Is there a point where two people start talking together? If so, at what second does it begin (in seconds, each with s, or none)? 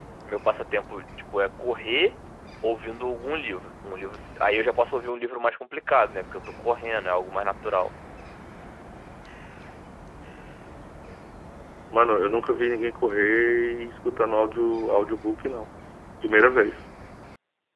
none